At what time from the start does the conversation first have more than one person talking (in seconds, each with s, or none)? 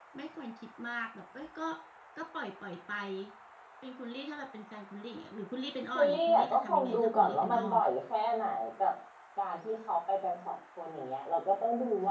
5.9 s